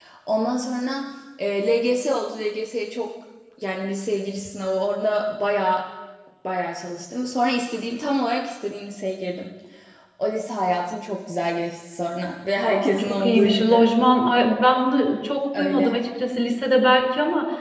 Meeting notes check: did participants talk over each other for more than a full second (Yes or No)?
Yes